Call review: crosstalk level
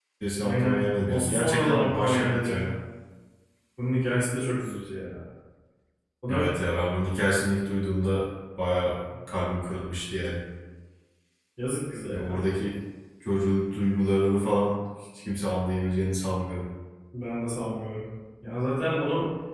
present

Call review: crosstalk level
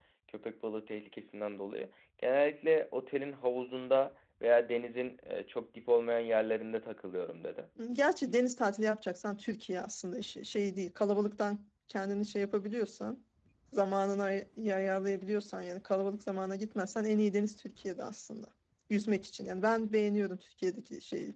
none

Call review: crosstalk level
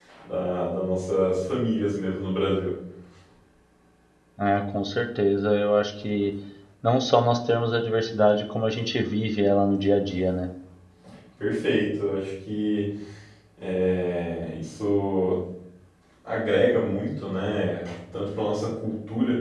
none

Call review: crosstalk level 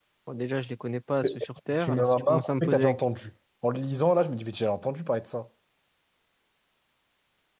present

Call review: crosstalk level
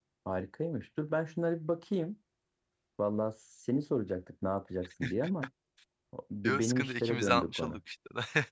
present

